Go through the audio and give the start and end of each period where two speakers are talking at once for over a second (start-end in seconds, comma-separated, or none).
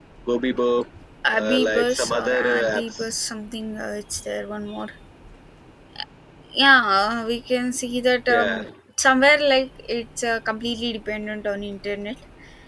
1.4-3.1